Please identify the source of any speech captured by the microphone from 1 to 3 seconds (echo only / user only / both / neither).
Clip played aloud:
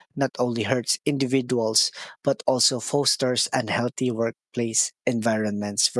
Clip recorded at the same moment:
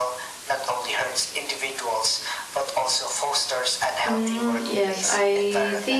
echo only